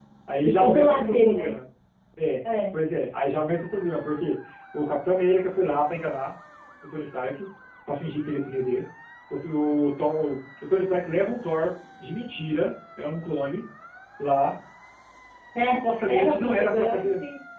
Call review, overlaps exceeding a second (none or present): present